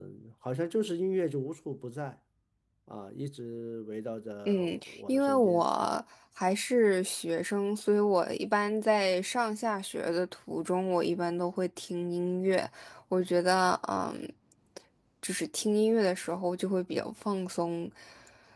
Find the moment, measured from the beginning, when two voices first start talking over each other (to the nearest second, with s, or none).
4 s